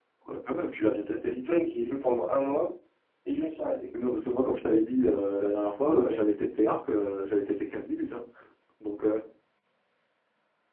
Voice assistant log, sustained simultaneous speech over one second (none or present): none